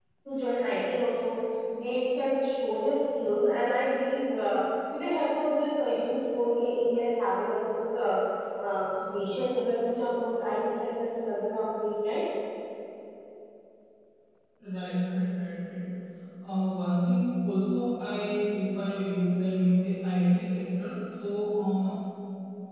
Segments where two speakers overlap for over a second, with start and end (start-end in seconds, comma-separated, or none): none